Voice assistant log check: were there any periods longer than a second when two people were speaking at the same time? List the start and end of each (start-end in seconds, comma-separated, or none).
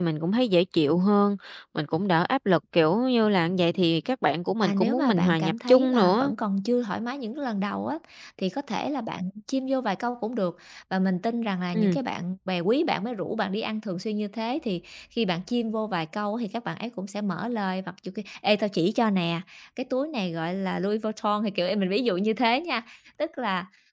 4.6-6.3